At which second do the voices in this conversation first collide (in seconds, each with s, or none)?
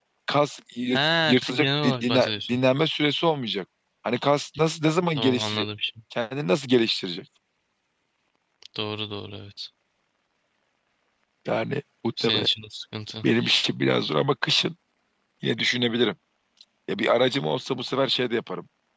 0.9 s